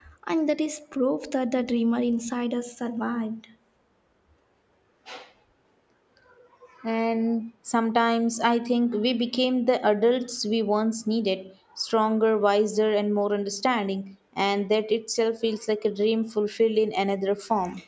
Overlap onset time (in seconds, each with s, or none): none